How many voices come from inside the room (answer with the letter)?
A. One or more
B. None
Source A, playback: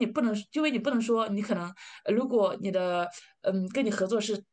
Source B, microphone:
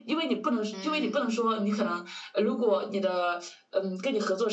A